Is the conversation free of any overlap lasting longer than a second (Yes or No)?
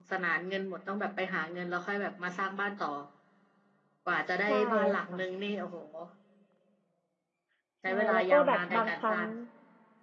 No